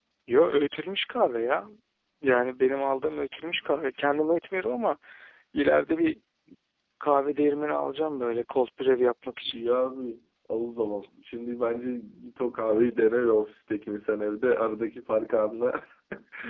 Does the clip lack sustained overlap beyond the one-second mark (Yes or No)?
Yes